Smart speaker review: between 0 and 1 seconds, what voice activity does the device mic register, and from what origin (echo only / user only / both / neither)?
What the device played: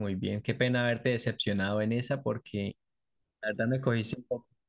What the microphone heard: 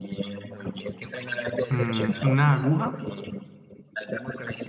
echo only